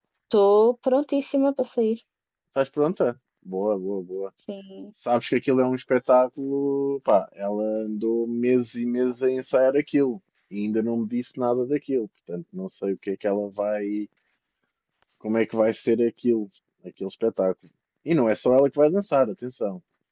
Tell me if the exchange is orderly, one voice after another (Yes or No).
Yes